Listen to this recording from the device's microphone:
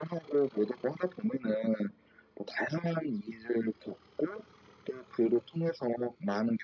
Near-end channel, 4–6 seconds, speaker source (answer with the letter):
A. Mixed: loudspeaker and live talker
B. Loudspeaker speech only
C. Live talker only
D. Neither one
B